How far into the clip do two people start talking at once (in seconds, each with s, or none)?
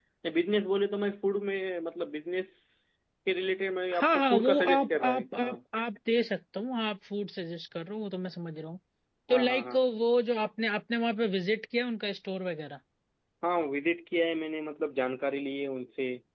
3.9 s